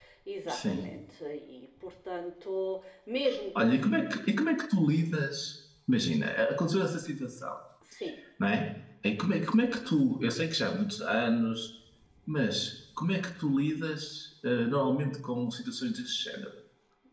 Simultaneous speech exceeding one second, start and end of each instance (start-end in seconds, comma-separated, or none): none